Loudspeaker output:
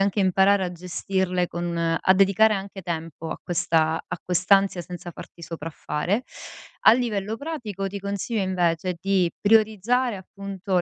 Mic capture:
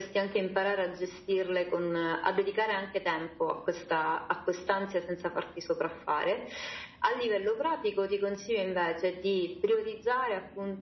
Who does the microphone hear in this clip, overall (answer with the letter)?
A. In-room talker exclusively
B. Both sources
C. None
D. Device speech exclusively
D